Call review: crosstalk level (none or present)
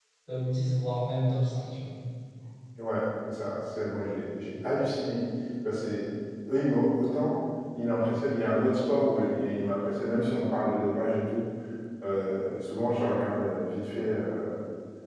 none